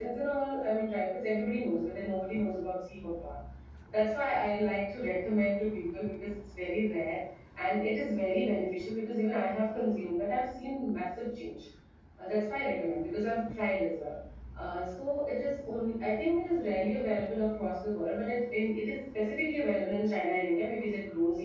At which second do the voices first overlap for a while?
none

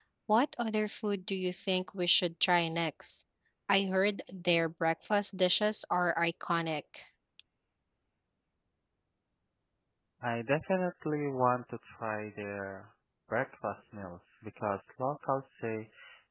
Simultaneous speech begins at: none

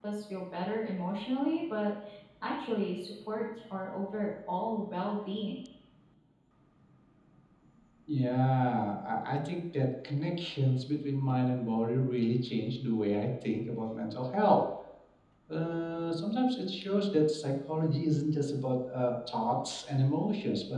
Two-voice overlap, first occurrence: none

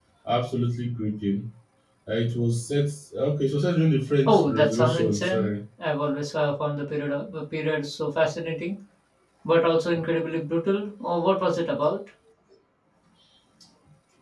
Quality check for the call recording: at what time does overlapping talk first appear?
4.3 s

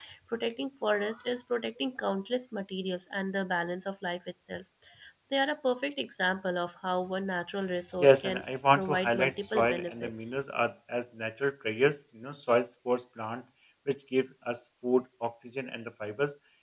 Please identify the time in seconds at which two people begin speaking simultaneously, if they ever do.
8.0 s

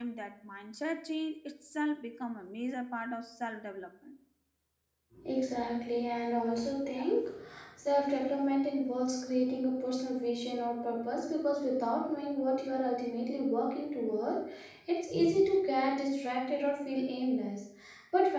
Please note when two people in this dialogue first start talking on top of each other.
none

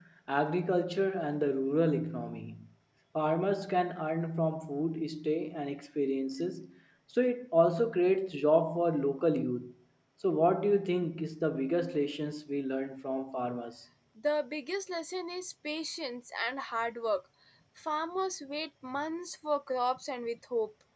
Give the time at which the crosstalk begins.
none

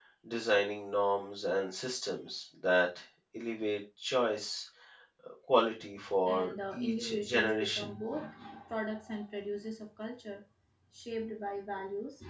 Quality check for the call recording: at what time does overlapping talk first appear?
6.2 s

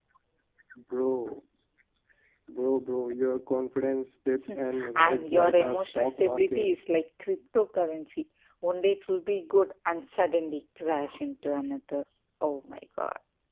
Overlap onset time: 5.0 s

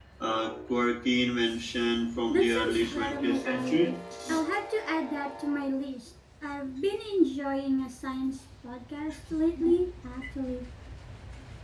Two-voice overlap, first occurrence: 2.3 s

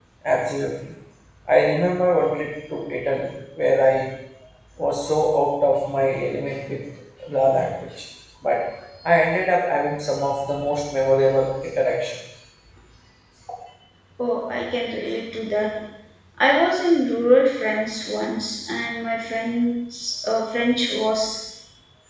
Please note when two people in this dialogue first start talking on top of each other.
none

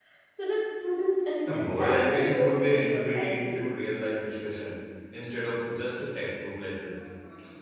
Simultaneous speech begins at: 1.5 s

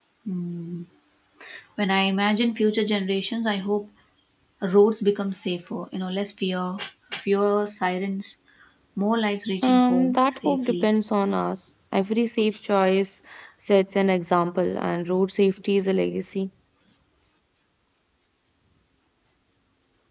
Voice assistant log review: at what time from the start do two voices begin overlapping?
9.6 s

